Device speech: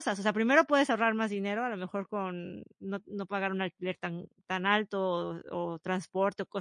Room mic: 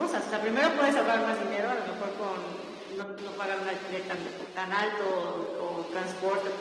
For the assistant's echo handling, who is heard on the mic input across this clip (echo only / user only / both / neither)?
echo only